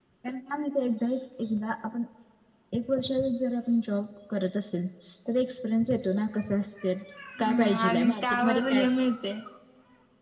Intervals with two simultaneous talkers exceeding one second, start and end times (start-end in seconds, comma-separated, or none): 7.4-8.8